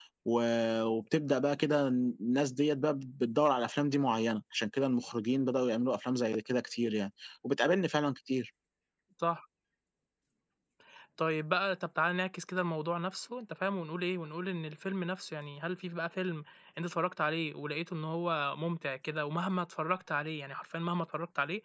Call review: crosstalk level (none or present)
none